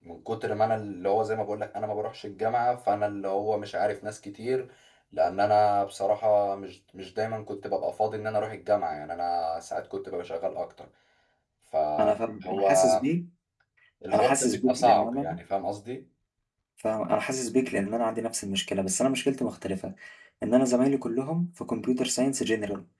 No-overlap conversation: No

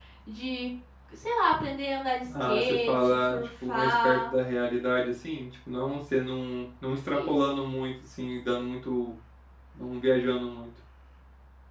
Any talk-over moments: Yes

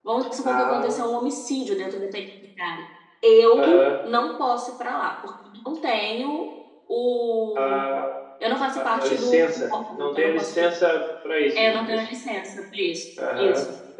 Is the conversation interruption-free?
No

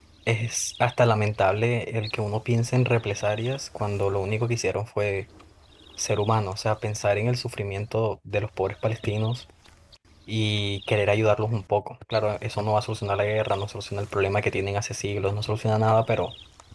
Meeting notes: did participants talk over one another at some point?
No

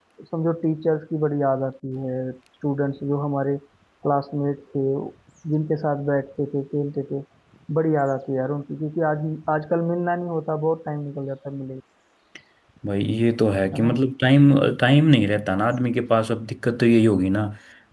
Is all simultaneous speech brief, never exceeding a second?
Yes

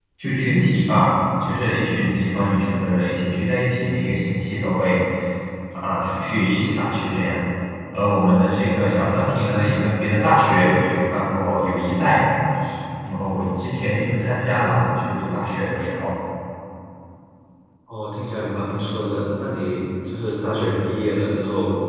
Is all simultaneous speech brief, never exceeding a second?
Yes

